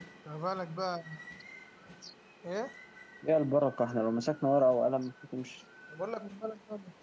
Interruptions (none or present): none